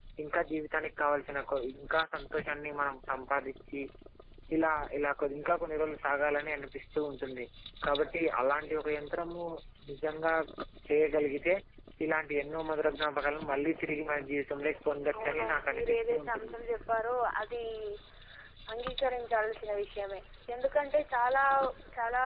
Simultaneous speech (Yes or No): Yes